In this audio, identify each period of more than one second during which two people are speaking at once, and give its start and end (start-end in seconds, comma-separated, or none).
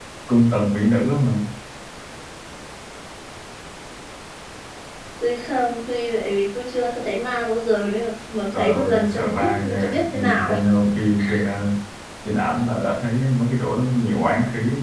8.5-10.5